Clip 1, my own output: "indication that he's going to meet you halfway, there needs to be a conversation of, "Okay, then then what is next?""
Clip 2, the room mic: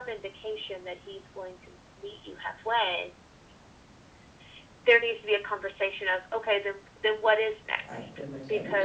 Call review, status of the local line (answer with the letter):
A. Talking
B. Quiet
A